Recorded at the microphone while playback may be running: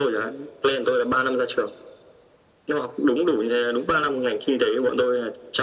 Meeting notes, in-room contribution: none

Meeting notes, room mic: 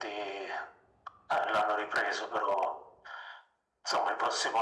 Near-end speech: none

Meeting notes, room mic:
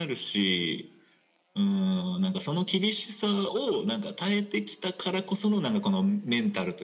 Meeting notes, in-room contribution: none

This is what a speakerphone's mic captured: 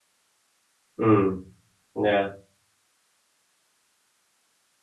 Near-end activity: present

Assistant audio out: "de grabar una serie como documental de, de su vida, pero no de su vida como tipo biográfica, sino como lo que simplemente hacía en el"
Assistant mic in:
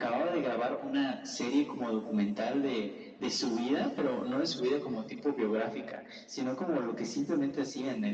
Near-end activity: none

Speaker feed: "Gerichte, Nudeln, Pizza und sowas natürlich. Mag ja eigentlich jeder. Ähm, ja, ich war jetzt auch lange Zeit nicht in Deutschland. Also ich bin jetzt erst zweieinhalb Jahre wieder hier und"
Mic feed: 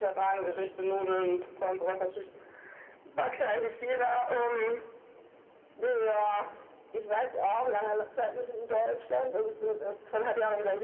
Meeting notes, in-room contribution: none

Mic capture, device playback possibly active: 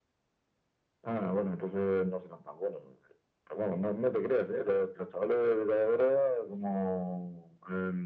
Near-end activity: none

